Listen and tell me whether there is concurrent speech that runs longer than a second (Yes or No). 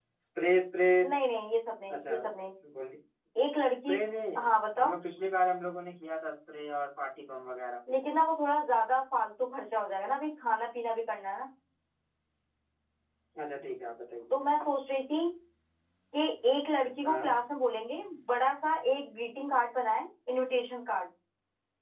No